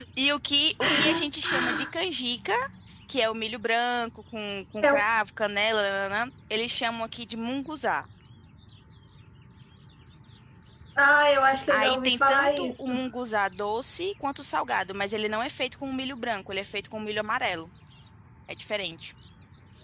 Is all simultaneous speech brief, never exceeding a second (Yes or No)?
No